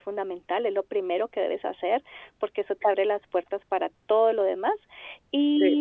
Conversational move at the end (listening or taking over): listening